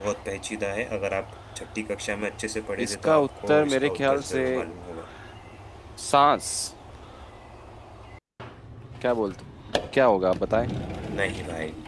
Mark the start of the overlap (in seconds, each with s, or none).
2.8 s